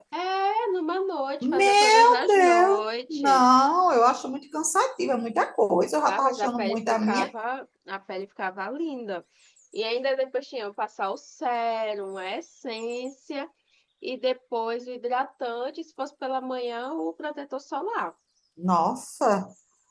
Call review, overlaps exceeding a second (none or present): present